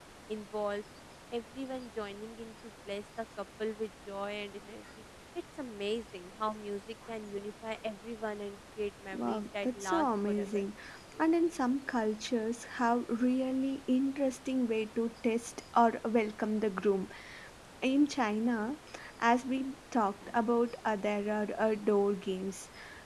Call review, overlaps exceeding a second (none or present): present